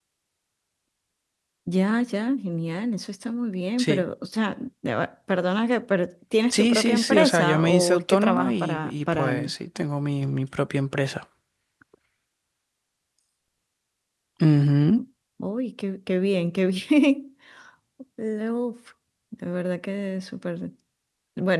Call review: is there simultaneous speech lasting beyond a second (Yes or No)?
Yes